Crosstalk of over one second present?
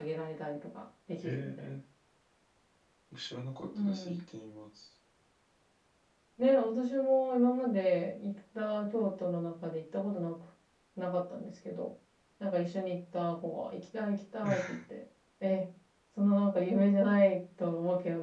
No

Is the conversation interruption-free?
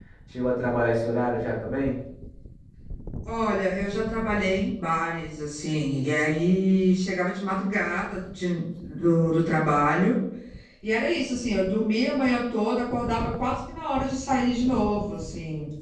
Yes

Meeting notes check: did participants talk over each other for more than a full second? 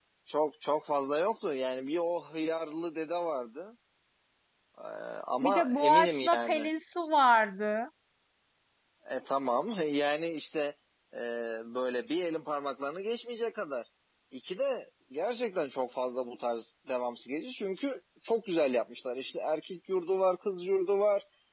Yes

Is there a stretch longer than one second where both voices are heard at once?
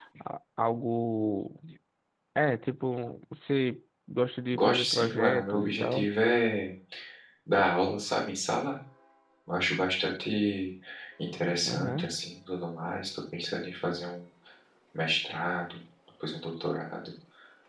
Yes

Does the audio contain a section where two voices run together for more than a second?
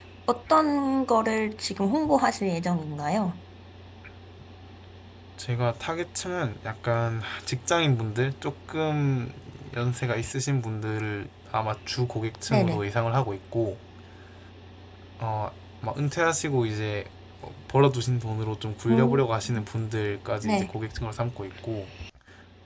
No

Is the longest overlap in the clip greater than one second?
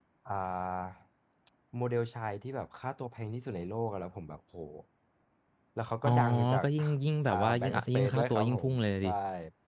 Yes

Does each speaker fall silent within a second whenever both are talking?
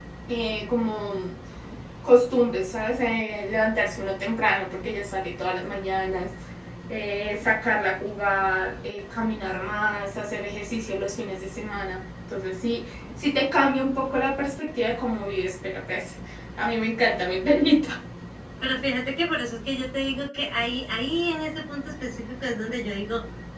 Yes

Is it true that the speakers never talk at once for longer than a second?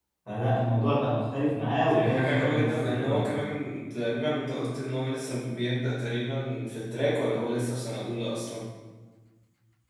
No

